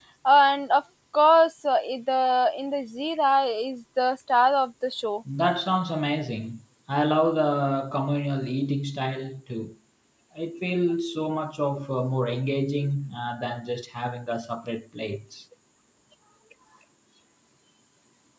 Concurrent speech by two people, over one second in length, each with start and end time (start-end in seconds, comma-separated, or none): none